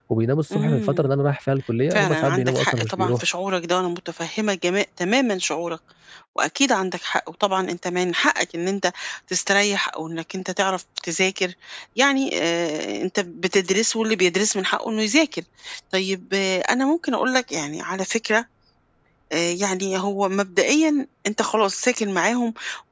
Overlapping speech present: Yes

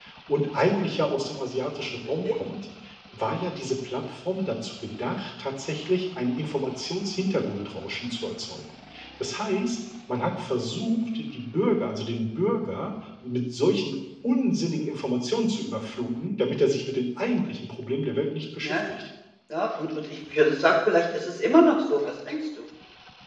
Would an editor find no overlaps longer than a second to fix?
Yes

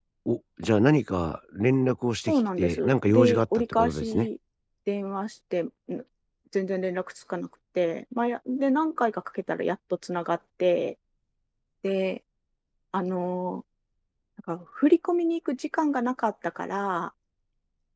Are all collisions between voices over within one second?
No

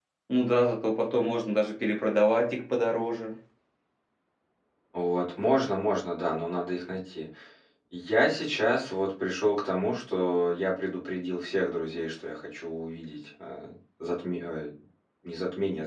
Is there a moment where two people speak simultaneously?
No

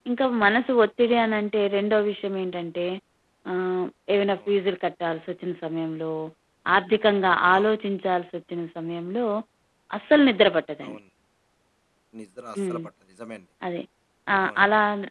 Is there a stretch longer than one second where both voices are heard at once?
No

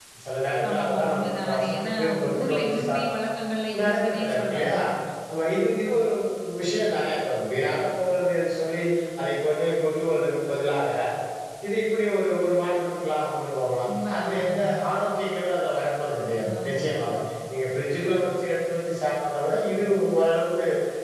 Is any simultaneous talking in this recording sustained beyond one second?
Yes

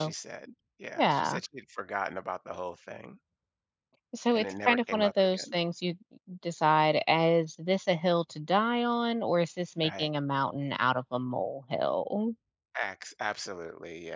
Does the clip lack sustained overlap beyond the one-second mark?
No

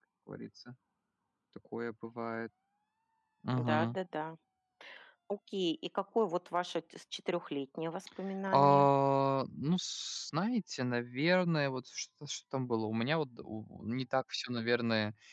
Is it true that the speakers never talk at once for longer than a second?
Yes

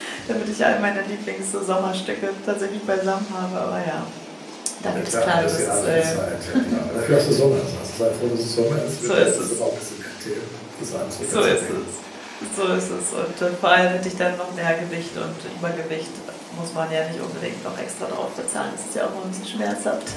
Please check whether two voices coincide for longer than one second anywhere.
Yes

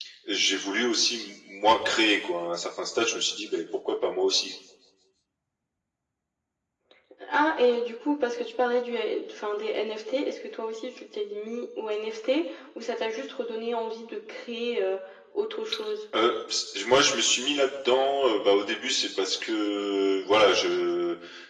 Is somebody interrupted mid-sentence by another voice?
No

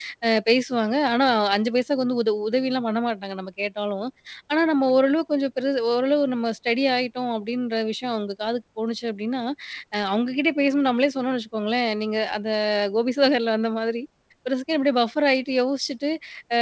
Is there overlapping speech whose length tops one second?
No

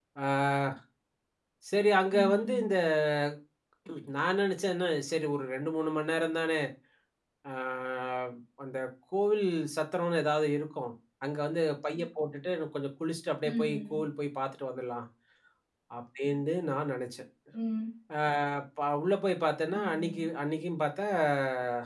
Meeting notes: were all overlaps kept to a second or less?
Yes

